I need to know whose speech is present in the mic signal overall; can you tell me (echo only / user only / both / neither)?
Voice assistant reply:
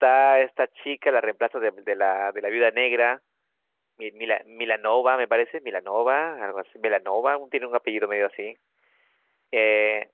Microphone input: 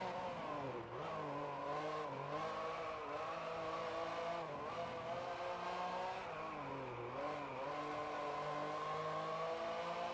neither